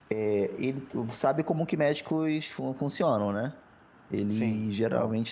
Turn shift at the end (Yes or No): No